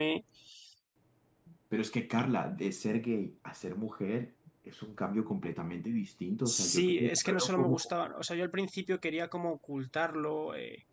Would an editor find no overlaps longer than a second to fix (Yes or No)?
No